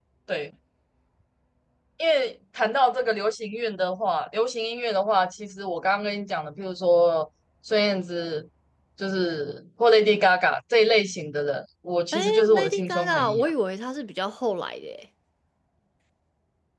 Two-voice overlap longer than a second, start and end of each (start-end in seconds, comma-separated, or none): 12.3-13.5